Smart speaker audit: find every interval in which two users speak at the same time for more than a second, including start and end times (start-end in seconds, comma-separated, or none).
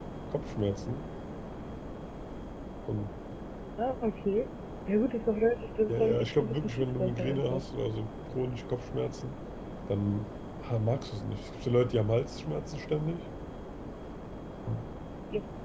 5.9-7.6